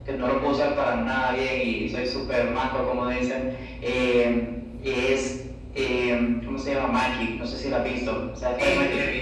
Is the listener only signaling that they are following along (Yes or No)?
No